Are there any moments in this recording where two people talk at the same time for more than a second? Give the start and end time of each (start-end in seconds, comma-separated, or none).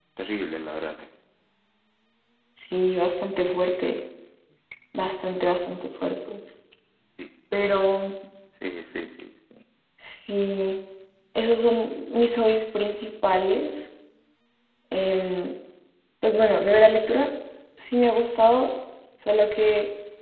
none